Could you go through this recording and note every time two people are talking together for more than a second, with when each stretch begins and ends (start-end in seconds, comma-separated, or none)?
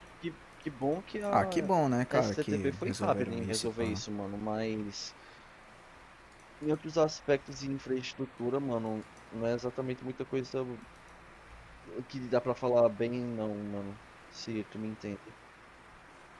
2.1-4.0